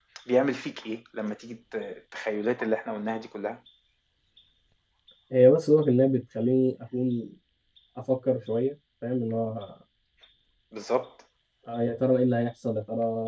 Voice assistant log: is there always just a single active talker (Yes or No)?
Yes